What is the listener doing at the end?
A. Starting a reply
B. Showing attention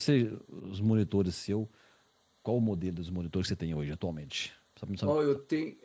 A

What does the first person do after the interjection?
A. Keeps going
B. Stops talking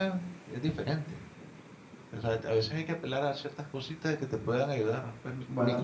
B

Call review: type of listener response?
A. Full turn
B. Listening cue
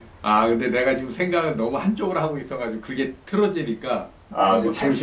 A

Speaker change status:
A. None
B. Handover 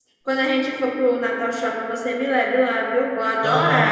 B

